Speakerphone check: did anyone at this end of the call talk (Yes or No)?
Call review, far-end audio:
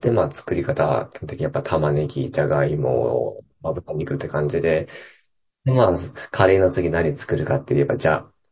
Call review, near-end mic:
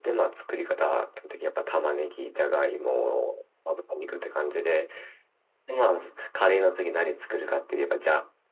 No